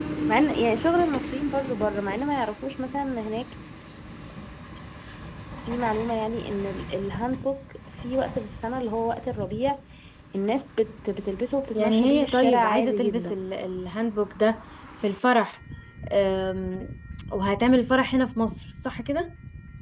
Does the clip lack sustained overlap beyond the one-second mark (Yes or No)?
No